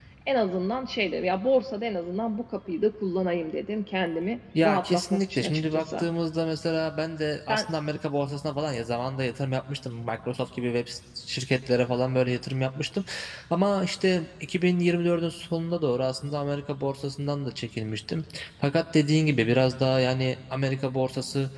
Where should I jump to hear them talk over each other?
5 s

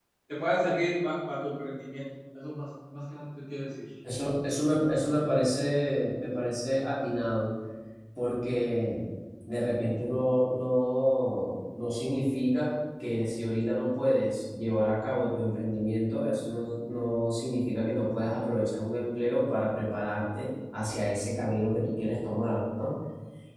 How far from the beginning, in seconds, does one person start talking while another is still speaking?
none

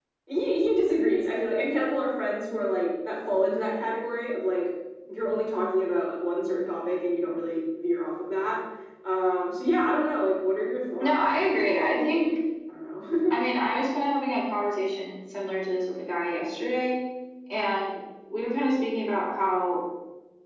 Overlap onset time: 11 s

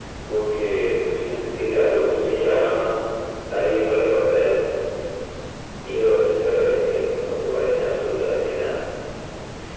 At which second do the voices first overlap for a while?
2 s

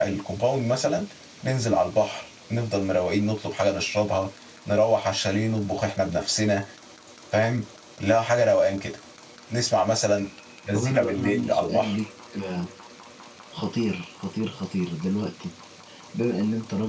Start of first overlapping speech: 11 s

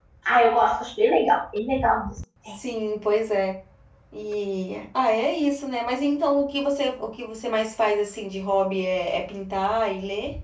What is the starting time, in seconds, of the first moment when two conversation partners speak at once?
none

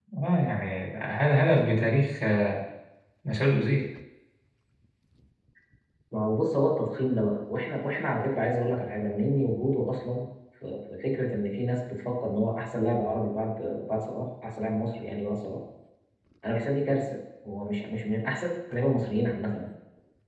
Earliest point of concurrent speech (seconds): none

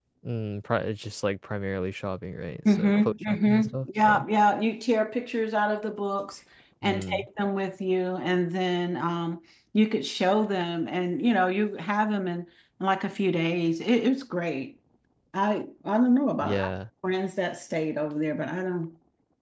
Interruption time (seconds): 3 s

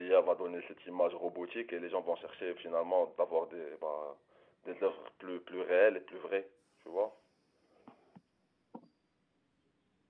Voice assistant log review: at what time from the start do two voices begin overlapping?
none

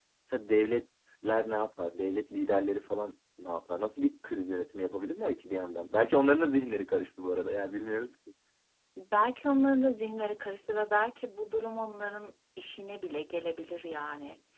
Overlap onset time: none

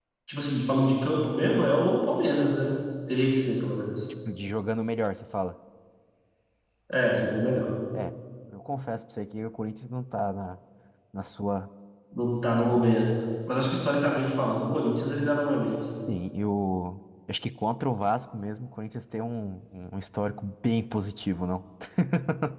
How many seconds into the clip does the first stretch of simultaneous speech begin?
none

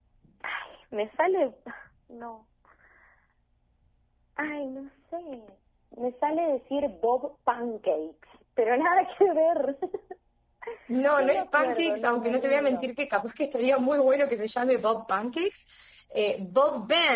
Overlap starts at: 11 s

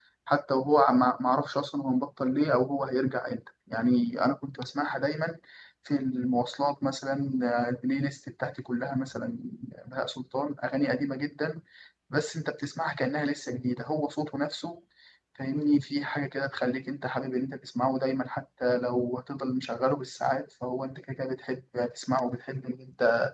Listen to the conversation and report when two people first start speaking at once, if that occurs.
none

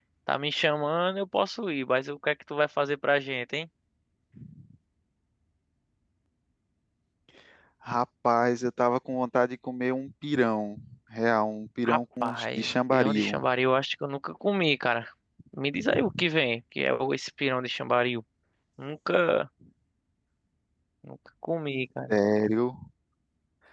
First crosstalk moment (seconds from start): 12 s

